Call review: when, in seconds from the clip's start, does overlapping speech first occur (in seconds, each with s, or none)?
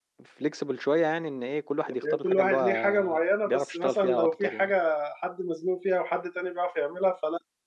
1.9 s